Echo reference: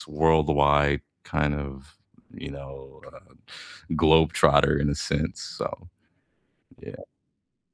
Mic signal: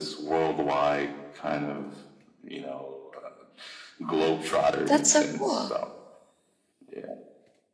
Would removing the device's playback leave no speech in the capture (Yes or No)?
No